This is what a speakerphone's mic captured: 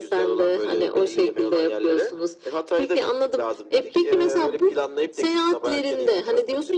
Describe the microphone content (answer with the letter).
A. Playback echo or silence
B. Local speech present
A